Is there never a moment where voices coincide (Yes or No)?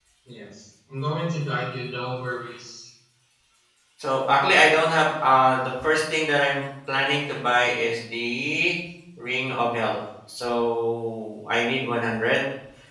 Yes